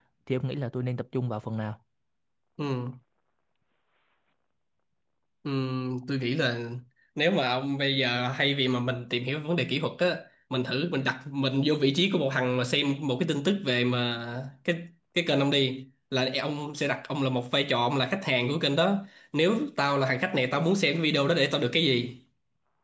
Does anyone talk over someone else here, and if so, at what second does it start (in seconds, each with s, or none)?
none